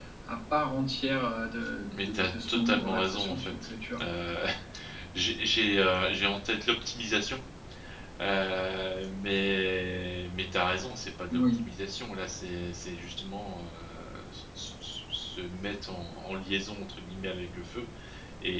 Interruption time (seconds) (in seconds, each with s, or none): 2.1 s